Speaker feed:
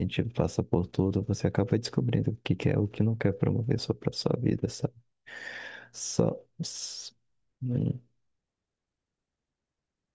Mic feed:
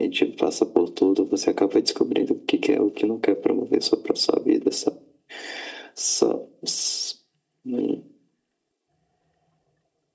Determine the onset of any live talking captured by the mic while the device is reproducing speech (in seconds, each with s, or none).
none